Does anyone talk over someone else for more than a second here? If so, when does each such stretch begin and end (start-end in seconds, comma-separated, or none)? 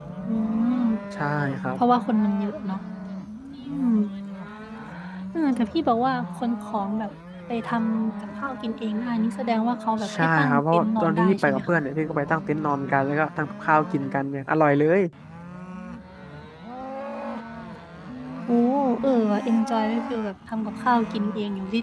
10.1-11.8